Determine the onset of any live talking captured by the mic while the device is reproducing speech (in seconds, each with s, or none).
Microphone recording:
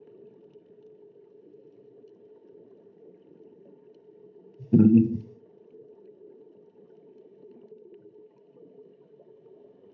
4.7 s